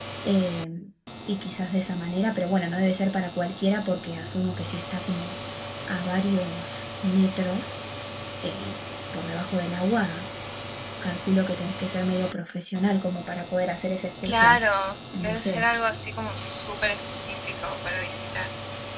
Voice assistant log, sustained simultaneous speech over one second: none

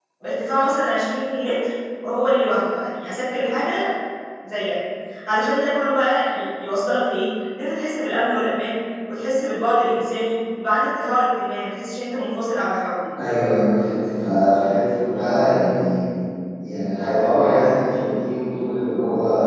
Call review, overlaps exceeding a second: none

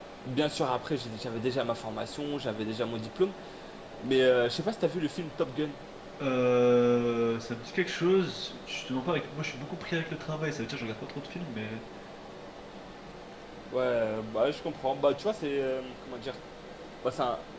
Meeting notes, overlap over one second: none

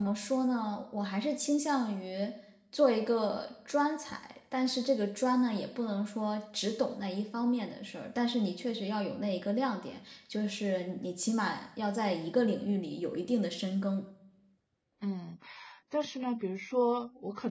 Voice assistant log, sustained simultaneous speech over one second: none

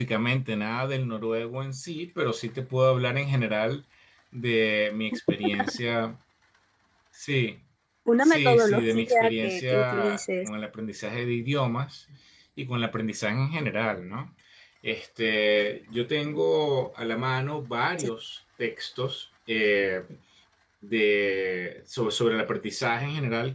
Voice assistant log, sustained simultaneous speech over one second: present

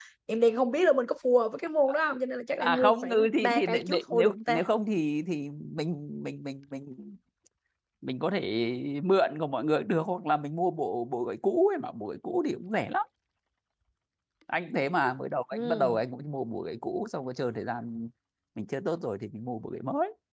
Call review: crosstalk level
present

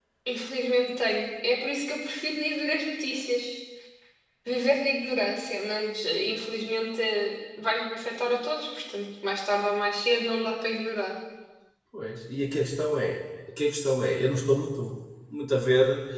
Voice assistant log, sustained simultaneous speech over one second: none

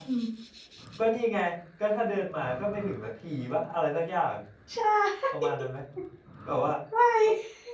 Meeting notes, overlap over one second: none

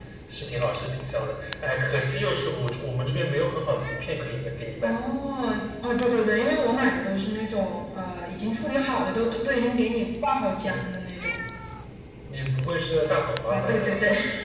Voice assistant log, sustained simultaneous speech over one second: none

